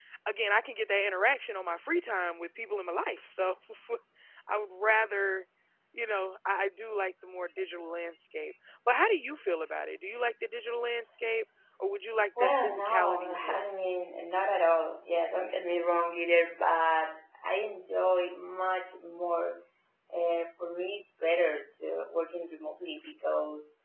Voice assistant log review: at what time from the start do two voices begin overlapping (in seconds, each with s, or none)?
12.4 s